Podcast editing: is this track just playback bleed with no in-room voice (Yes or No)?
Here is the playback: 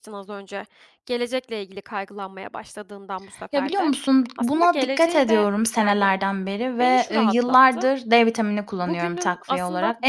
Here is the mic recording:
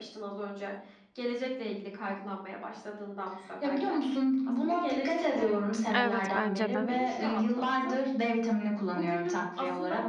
No